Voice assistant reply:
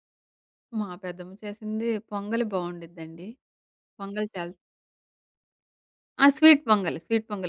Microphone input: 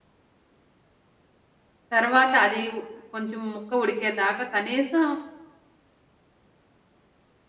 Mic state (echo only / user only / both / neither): user only